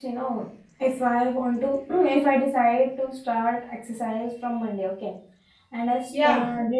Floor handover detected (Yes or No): No